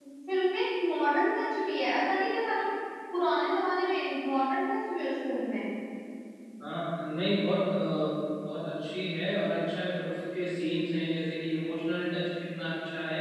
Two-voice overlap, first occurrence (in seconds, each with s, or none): none